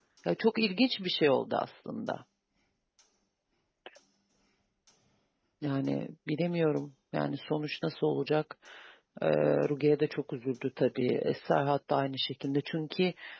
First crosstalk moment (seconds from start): none

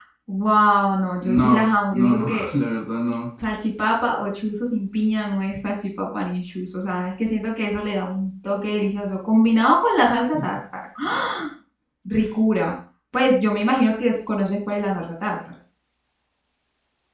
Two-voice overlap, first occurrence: 1 s

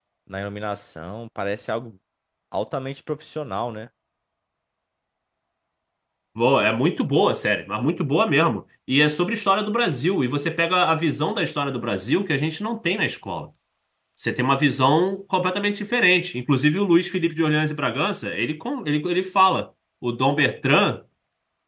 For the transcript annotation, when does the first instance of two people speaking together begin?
none

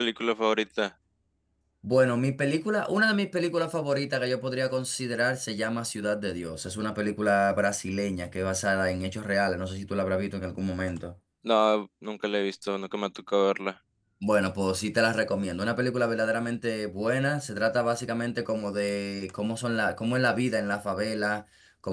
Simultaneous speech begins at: none

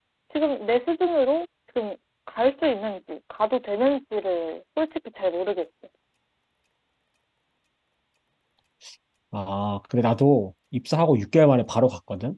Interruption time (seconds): none

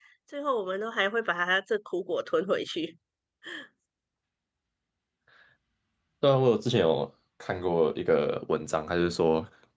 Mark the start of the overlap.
none

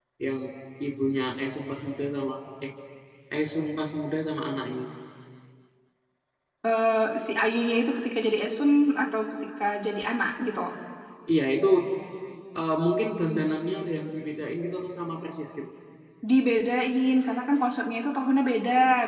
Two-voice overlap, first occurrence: none

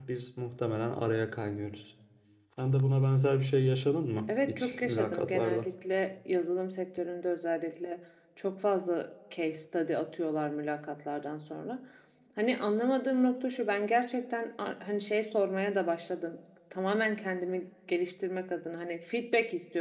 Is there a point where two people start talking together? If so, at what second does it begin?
4 s

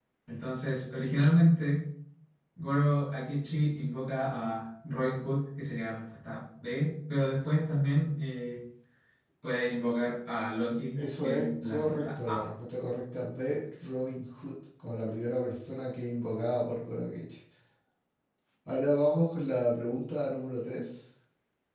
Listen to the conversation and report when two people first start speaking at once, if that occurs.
11 s

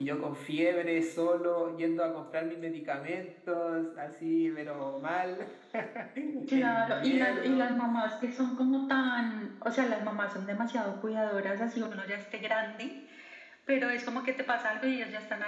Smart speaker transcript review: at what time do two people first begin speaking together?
6 s

